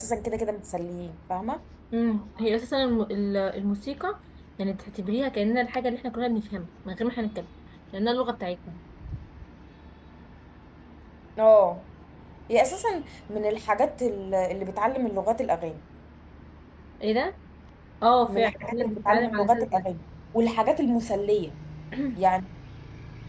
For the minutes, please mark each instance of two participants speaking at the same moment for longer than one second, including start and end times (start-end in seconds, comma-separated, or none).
18.2-19.9